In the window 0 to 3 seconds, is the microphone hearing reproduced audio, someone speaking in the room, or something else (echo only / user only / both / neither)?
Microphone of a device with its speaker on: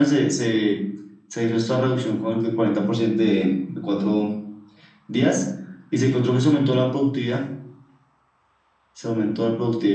echo only